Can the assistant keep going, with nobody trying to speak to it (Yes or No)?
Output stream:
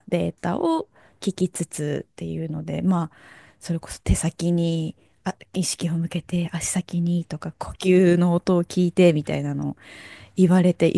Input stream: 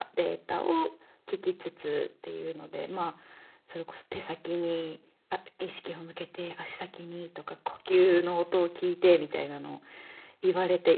Yes